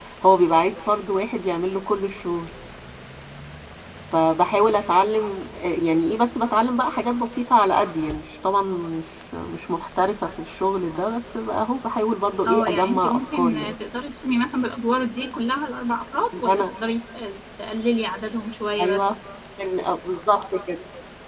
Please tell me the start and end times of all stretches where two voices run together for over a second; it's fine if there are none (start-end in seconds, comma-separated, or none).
12.4-13.7